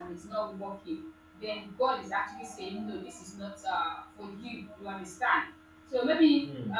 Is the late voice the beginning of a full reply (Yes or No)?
No